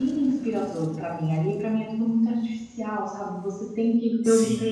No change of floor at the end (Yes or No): Yes